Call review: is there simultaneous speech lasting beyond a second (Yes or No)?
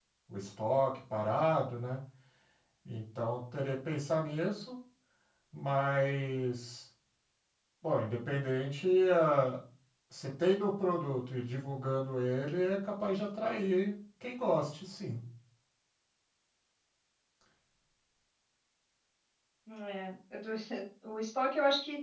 No